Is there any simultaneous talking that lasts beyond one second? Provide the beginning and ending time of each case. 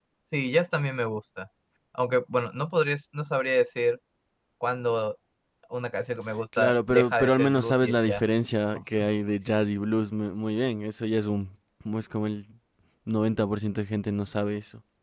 6.6-8.2

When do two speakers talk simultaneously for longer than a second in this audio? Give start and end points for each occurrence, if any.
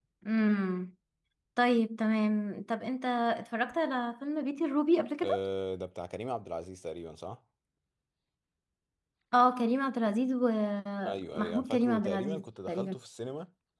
11.1-12.9

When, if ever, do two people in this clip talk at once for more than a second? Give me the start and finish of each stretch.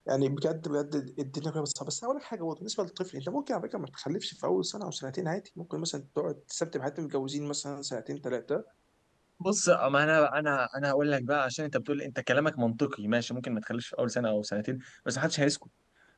none

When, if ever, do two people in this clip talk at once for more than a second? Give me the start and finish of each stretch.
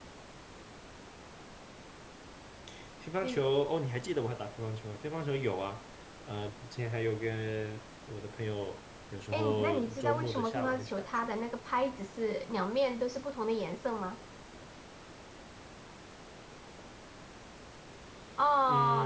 9.3-11.3

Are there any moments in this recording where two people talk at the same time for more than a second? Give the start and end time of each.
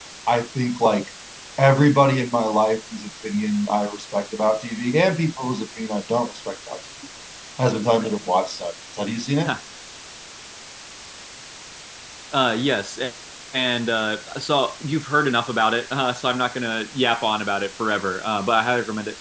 none

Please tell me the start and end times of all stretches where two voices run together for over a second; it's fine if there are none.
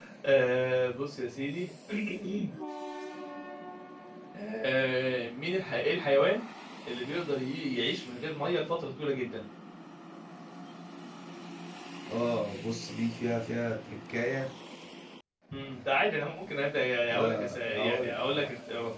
17.1-18.5

